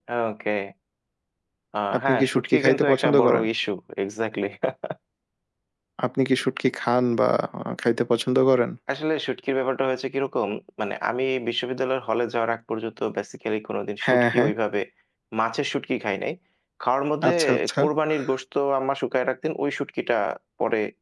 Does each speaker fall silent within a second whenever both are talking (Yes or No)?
No